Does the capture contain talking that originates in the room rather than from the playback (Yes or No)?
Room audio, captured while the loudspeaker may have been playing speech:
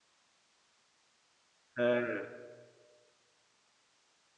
Yes